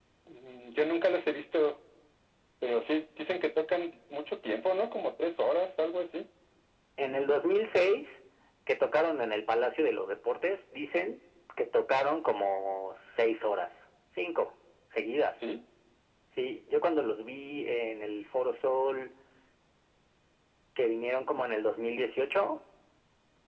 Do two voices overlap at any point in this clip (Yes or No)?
No